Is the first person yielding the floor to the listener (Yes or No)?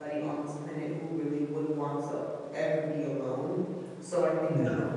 No